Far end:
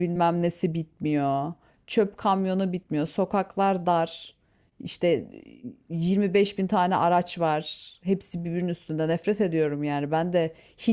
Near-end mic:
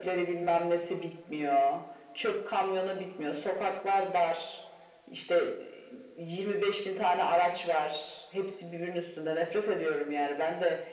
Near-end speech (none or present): none